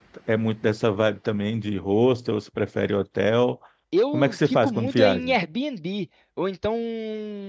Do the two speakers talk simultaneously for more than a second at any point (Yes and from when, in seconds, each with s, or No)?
Yes, from 4.1 s